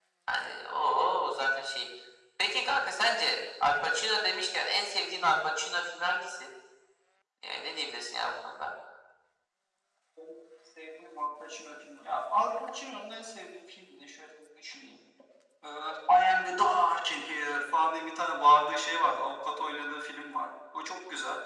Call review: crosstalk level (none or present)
none